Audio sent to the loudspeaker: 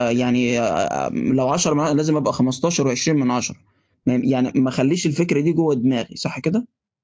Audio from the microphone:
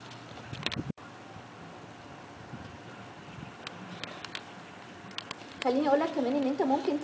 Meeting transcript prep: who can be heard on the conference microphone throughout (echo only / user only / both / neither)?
user only